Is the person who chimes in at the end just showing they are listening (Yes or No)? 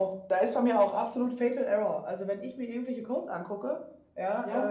Yes